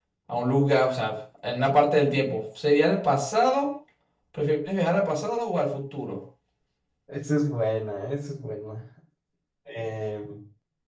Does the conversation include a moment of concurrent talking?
No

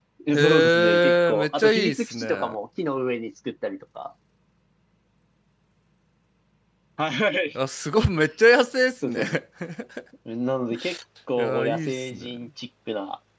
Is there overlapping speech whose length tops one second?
Yes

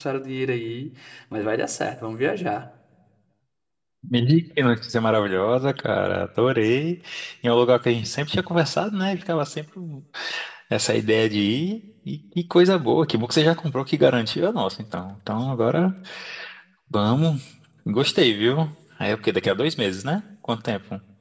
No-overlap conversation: Yes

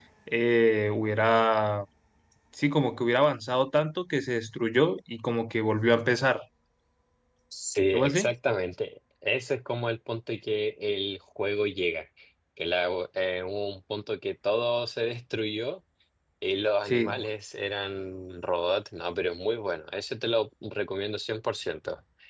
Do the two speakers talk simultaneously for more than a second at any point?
No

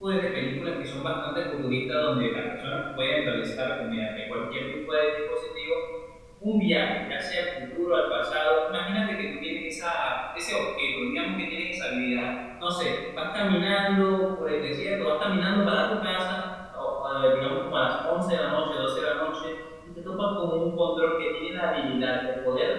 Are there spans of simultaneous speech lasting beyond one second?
No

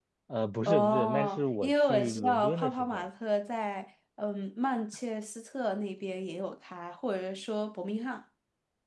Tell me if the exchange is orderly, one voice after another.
No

